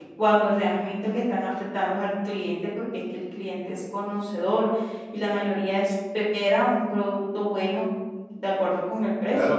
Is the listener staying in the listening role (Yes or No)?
No